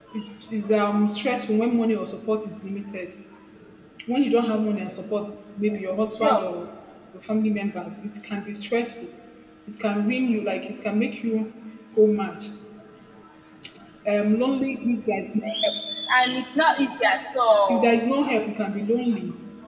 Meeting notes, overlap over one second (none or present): none